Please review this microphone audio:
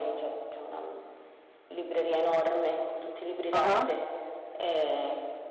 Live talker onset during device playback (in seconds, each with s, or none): 3.5 s